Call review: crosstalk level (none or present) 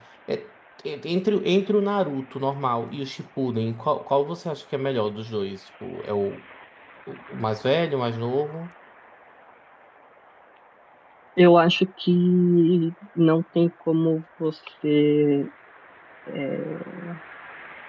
none